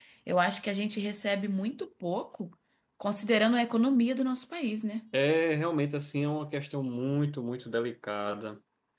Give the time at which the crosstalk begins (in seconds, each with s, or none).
none